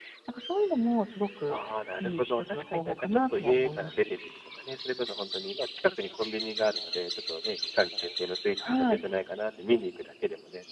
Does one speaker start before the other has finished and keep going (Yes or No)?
Yes